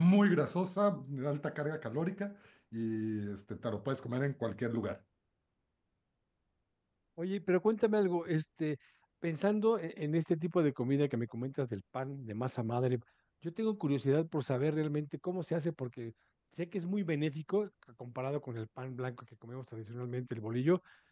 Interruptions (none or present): none